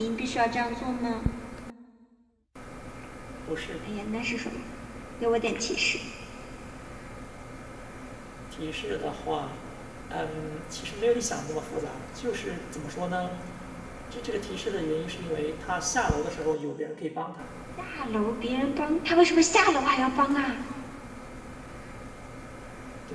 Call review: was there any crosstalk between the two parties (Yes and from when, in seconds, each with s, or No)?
No